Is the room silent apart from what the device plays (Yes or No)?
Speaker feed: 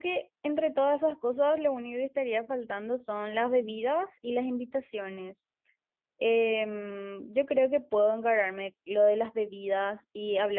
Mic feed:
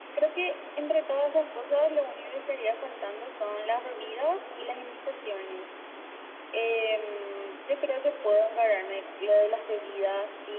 Yes